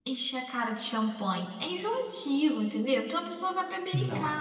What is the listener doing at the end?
listening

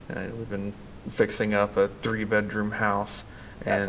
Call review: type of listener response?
listening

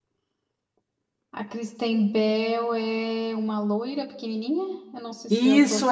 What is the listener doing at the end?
taking over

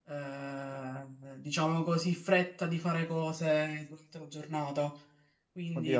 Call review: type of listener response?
taking over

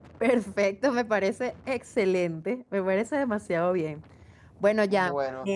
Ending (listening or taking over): listening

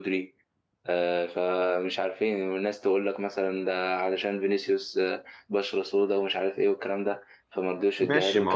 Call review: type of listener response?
taking over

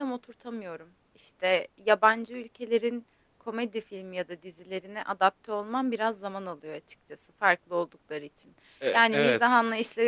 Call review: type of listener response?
listening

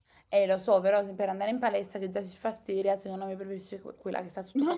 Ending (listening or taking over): taking over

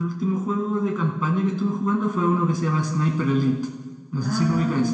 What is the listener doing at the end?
taking over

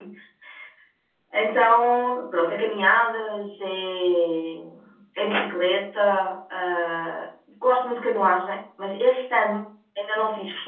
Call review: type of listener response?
listening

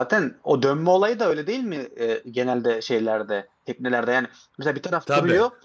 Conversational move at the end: listening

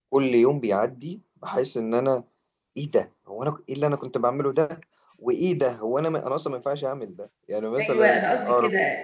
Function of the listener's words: taking over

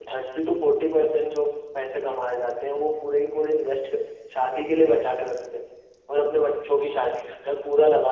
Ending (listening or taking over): listening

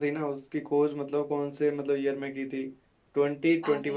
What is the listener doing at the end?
listening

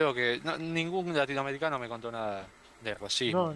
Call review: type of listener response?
taking over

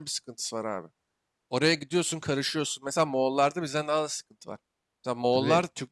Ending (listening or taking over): listening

